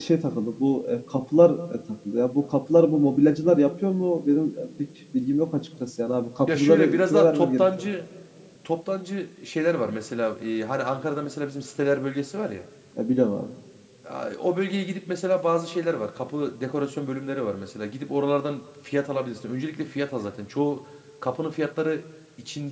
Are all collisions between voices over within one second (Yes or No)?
No